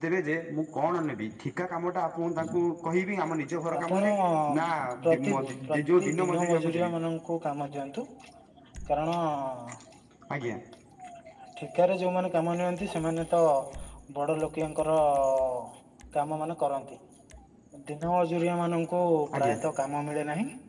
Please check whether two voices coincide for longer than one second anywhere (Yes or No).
Yes